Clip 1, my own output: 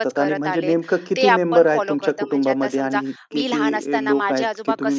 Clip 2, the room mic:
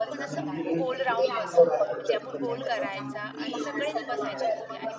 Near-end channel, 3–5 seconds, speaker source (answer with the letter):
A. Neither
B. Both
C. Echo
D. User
B